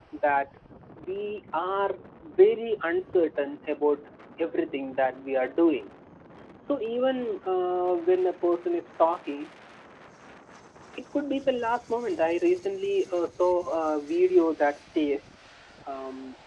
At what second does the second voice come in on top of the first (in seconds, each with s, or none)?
none